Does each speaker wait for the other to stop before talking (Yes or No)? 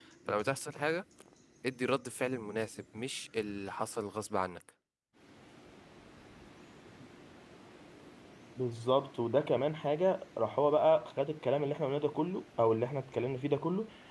Yes